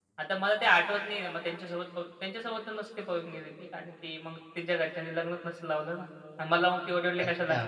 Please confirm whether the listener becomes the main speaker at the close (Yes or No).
Yes